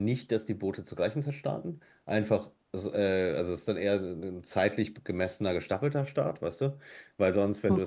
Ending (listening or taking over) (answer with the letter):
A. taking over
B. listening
B